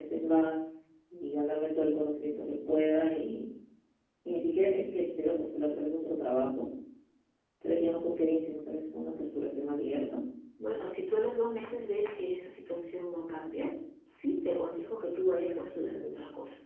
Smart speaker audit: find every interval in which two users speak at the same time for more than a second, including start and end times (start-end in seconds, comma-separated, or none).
none